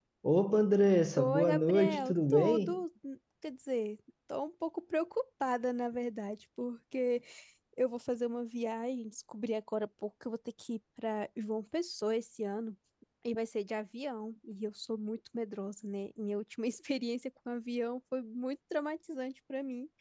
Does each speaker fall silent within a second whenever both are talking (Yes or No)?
No